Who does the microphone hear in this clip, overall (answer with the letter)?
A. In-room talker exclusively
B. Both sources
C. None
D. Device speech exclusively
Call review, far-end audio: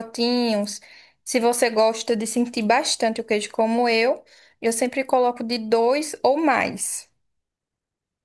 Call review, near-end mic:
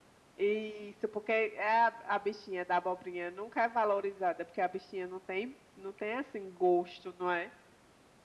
A